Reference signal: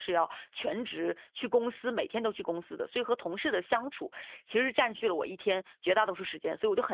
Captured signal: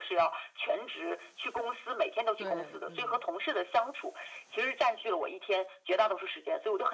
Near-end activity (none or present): present